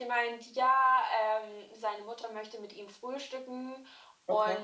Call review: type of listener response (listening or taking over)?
listening